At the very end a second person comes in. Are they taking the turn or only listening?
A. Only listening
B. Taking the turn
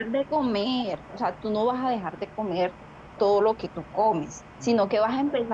A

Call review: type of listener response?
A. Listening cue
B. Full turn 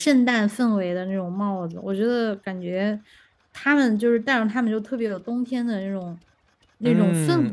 B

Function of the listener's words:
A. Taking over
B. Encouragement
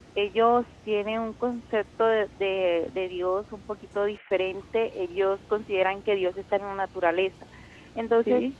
B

